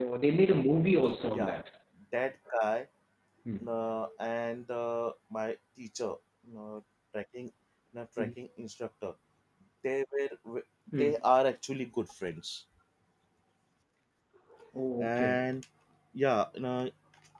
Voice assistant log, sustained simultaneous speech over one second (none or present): none